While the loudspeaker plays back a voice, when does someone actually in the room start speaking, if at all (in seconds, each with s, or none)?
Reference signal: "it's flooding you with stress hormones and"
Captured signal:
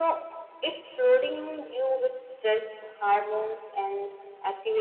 none